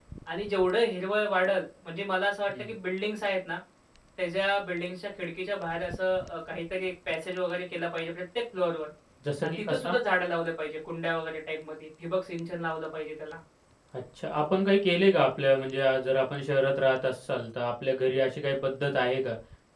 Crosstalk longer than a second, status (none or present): none